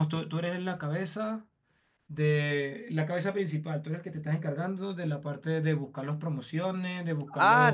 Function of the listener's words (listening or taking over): taking over